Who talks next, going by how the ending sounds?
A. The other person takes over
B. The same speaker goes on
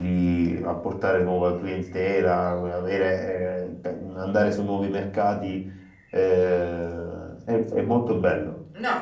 A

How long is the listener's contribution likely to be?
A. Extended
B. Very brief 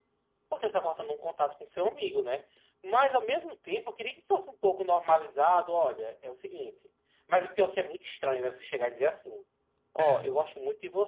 B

